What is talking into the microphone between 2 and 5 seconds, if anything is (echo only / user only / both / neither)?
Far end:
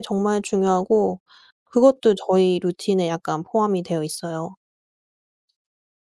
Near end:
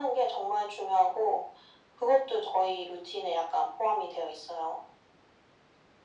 echo only